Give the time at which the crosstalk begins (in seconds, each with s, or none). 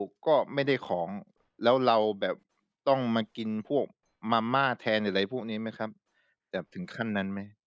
none